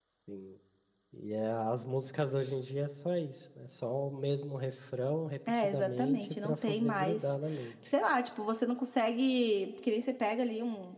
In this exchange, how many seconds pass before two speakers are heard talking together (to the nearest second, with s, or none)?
5 s